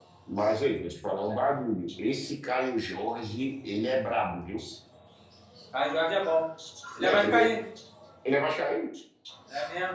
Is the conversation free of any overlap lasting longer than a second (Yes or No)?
Yes